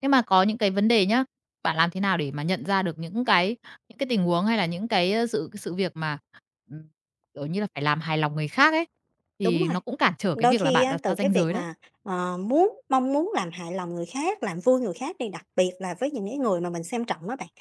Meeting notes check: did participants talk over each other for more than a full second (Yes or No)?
Yes